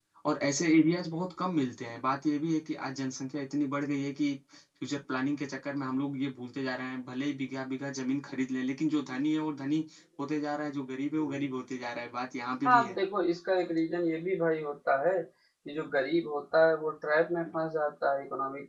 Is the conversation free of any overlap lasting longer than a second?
Yes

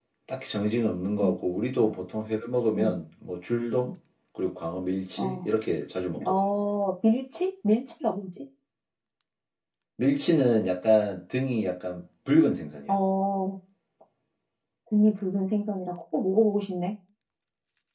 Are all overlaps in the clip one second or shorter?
Yes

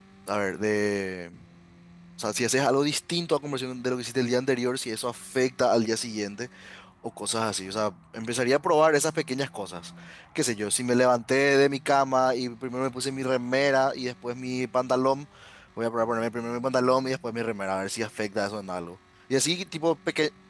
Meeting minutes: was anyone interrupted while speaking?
No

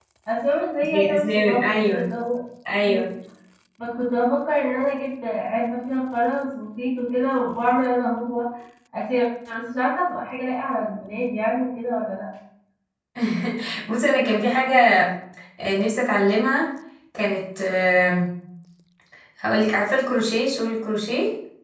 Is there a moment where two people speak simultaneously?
Yes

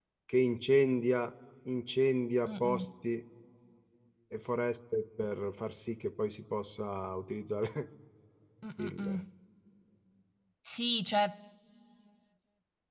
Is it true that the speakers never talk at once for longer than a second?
Yes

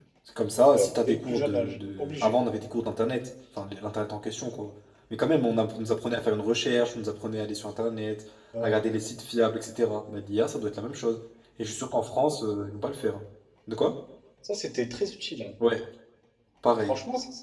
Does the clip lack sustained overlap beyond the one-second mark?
No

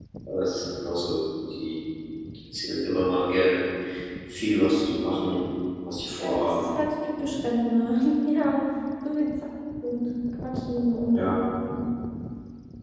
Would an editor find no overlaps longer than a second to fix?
Yes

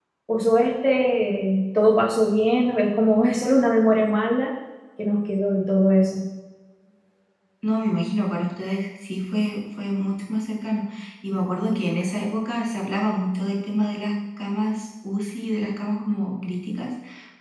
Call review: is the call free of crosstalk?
Yes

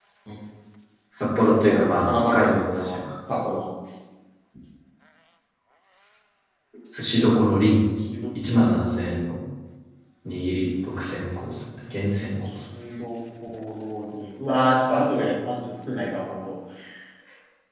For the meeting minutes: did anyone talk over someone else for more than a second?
Yes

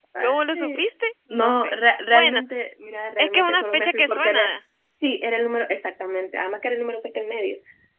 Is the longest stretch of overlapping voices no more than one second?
No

